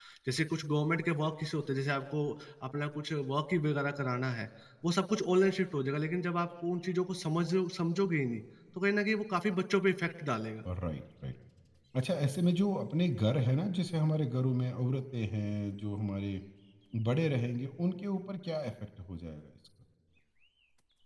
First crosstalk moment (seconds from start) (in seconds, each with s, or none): none